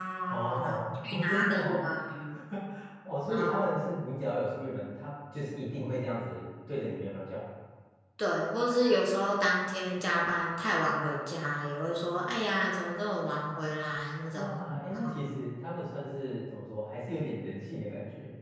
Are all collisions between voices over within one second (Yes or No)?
No